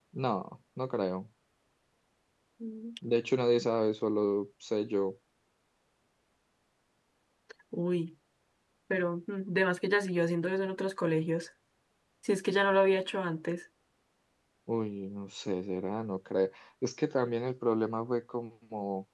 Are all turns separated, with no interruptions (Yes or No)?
Yes